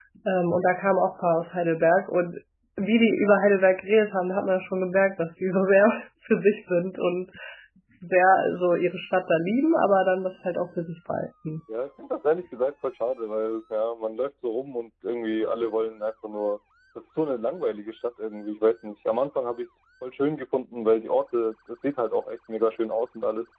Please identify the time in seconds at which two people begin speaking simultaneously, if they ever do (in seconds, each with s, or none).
none